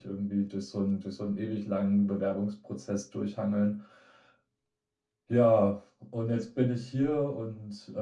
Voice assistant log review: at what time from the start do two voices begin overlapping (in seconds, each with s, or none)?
none